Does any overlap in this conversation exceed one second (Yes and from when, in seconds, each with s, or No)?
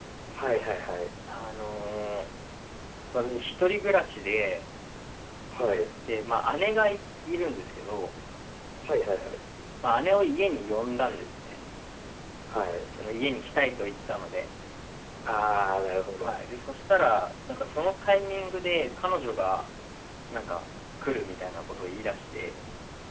No